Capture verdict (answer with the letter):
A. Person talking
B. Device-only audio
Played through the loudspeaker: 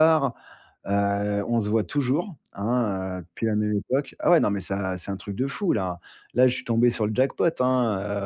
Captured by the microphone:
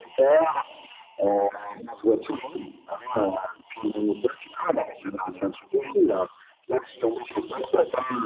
B